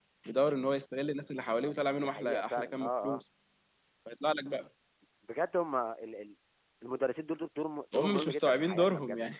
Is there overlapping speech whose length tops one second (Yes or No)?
Yes